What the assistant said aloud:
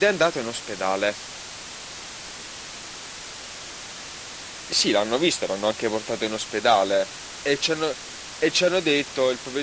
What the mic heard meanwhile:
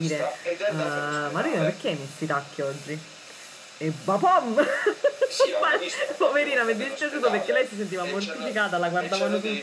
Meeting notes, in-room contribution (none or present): present